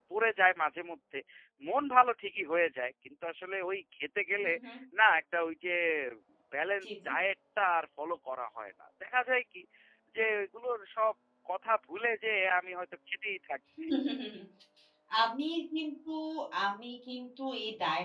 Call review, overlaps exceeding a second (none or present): none